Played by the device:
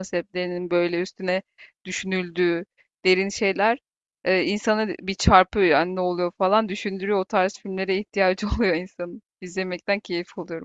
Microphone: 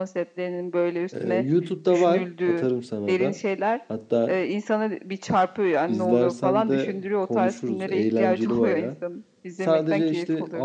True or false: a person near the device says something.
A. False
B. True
B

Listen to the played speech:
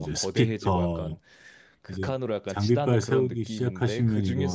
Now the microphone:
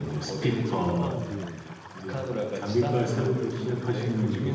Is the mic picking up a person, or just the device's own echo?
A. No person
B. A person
B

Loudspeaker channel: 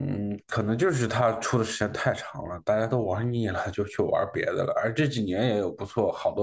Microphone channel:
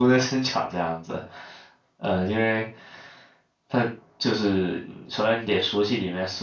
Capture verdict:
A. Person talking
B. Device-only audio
A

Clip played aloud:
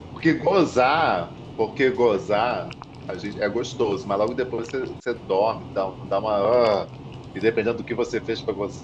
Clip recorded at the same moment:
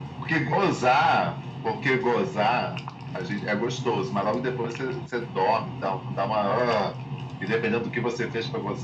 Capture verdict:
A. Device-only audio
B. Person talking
A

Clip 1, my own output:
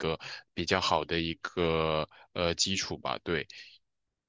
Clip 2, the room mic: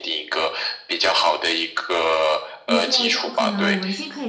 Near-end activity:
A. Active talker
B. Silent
A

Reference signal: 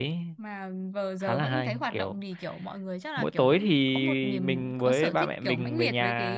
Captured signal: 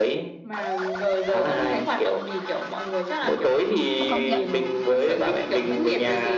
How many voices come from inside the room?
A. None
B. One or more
B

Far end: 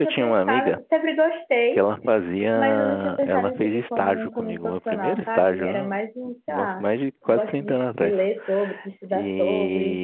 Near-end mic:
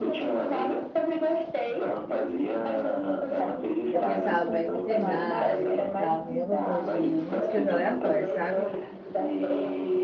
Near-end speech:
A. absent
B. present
B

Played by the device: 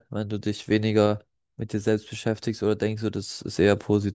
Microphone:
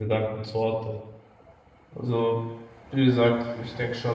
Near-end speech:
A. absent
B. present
B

